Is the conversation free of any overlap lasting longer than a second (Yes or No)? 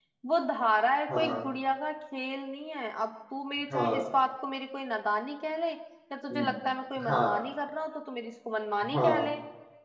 Yes